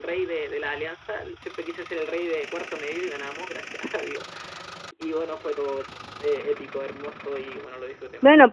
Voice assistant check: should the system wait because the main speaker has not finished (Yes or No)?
No